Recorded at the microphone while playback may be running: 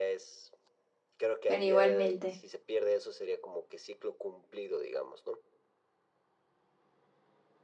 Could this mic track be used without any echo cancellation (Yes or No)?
No